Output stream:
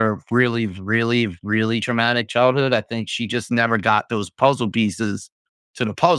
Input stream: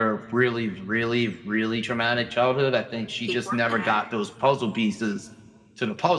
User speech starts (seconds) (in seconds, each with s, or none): 3.2 s